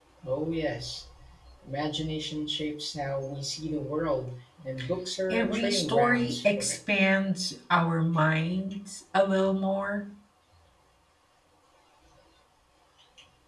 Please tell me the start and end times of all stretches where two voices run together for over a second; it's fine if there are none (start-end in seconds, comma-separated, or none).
5.3-6.8